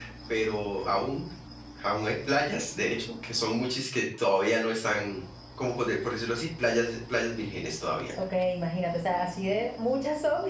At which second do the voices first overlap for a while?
none

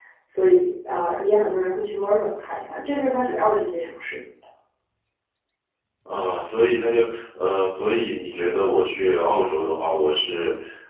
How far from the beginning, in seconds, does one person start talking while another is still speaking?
none

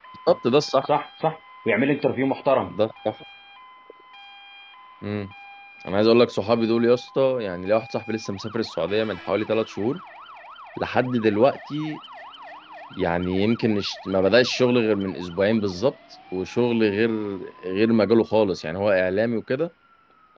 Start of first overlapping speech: none

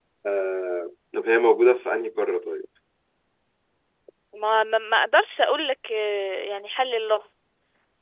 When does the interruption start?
none

